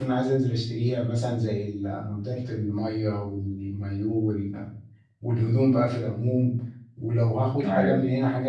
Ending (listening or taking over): listening